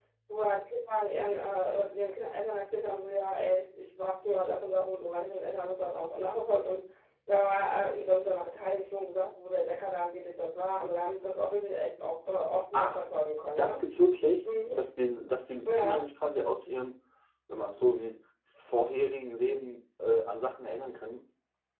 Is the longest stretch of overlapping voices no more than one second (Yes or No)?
Yes